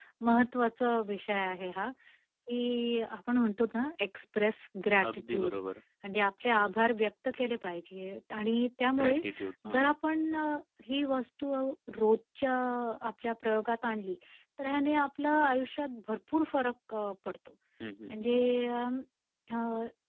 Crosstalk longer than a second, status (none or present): none